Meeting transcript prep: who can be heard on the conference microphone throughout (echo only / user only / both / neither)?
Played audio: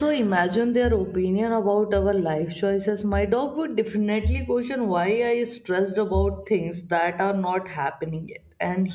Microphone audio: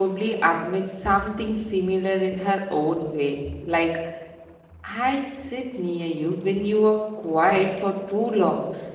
user only